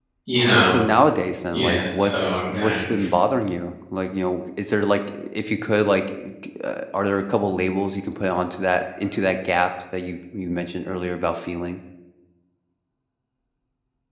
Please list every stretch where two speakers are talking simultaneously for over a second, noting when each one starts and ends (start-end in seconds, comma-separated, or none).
1.5-2.9